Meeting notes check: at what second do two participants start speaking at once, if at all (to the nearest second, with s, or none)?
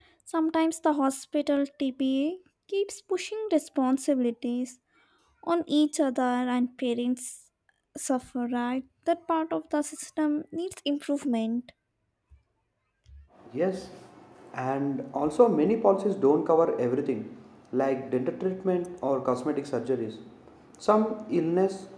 none